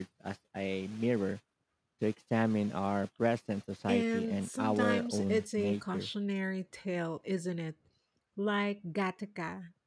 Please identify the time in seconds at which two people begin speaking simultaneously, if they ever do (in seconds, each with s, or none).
3.9 s